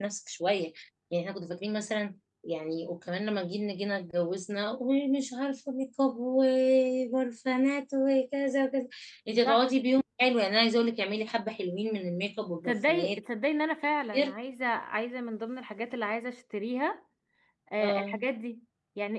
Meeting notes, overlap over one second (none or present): none